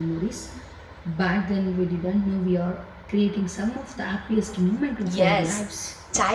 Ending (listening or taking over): taking over